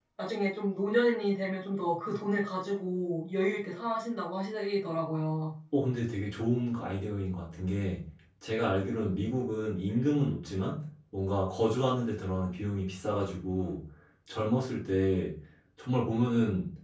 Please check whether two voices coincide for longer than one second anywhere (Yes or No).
No